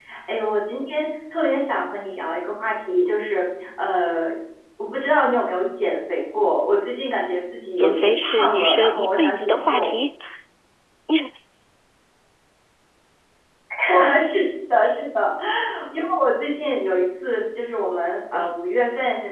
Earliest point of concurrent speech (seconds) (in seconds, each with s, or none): 7.8 s